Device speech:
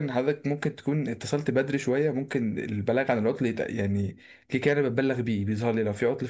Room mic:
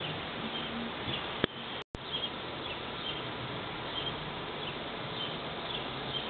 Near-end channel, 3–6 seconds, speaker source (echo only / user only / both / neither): neither